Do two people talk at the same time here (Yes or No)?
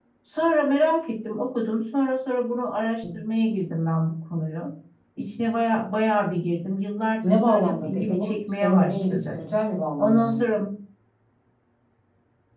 Yes